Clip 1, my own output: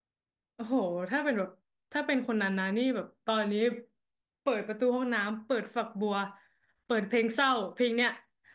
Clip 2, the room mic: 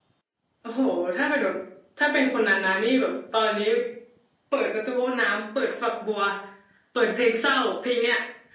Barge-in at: none

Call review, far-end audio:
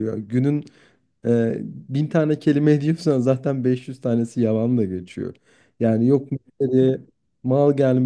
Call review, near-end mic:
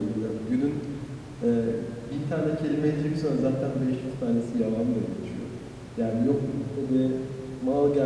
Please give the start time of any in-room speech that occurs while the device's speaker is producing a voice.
none

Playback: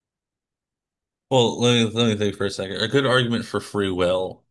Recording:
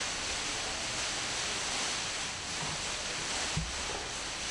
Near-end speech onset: none

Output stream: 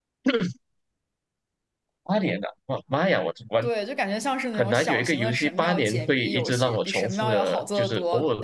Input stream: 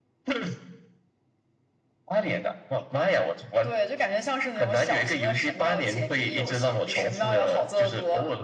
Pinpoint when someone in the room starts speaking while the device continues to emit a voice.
none

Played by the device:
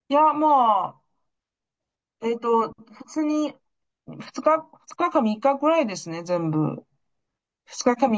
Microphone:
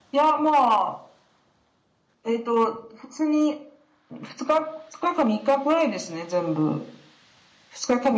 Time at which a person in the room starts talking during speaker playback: none

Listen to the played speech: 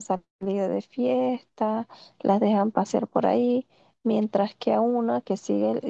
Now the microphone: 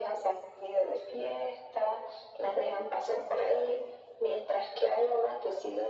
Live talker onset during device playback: none

